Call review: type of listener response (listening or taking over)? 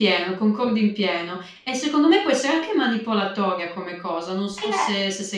taking over